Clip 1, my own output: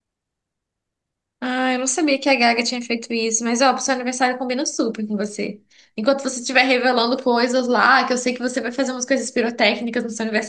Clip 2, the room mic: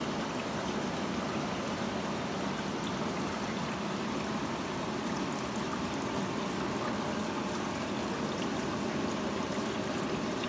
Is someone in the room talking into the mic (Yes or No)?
No